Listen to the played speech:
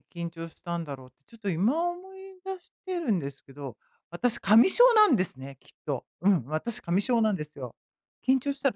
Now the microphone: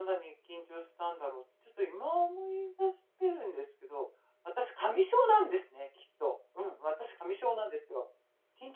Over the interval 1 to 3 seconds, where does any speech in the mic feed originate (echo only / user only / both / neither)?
echo only